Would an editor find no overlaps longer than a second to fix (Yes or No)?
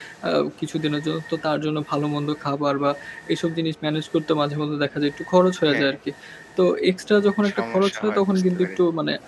No